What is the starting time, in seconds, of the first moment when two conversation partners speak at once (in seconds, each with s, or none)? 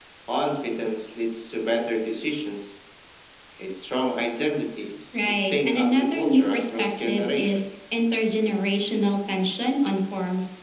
5.1 s